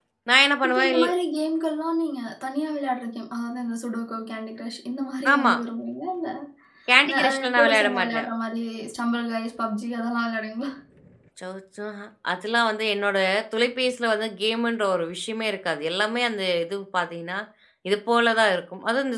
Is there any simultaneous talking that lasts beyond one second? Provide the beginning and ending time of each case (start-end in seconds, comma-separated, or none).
7.0-8.3